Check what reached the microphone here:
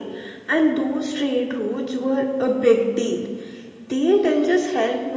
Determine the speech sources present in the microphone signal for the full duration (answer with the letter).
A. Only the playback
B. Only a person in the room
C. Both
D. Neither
A